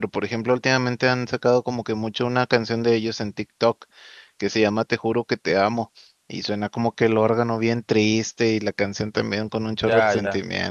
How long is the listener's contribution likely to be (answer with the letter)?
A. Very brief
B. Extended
B